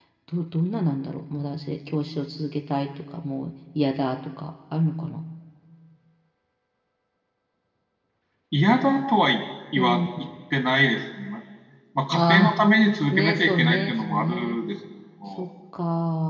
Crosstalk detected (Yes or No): Yes